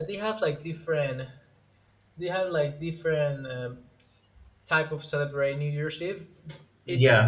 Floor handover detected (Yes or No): Yes